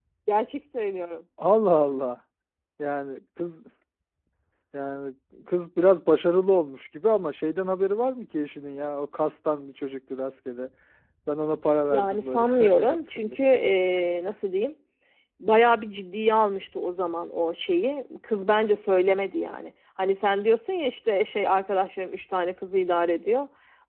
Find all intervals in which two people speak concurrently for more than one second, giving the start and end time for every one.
11.9-13.5

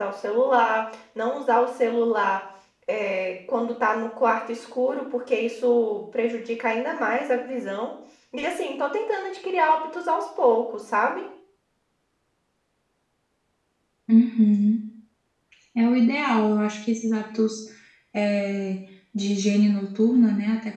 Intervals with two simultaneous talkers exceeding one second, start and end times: none

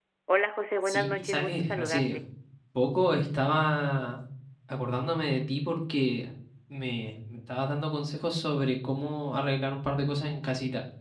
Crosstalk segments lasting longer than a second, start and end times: 0.8-2.2

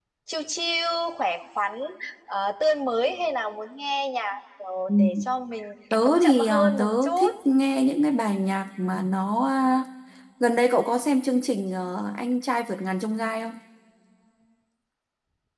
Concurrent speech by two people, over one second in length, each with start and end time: 6.0-7.3

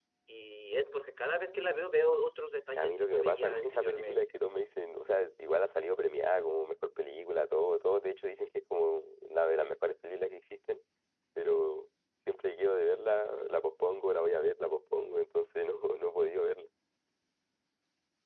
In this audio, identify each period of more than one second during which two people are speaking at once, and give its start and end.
2.8-4.2

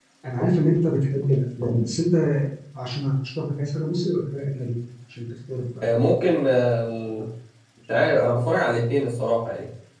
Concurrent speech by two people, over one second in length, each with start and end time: none

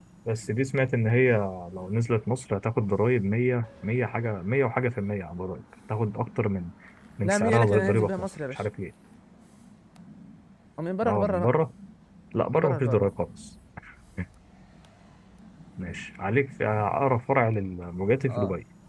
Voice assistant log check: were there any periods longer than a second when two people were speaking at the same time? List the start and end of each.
7.2-8.6

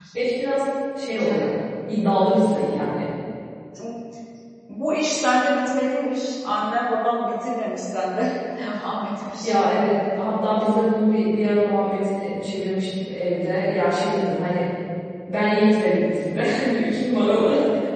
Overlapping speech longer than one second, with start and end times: none

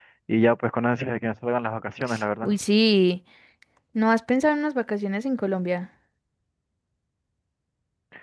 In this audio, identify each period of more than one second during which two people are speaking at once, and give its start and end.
none

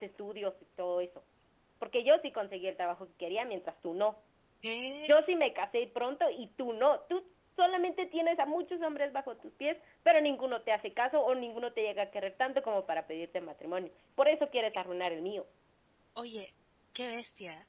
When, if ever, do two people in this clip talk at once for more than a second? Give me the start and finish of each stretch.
none

